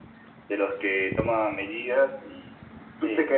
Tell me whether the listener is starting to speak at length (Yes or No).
No